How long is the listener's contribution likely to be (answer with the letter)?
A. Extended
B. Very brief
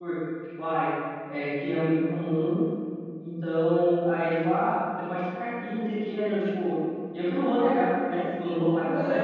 A